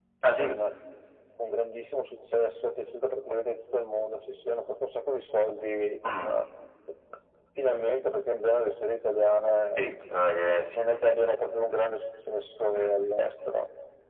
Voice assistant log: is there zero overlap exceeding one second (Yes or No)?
Yes